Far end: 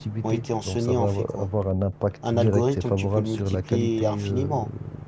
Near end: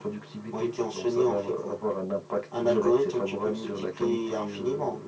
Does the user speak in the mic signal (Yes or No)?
No